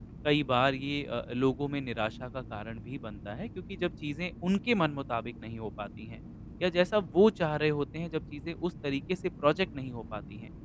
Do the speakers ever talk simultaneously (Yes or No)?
No